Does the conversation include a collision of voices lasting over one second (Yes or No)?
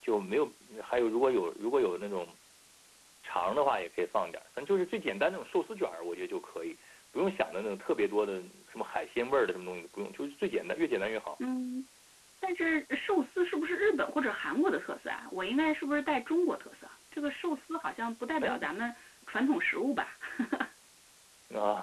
No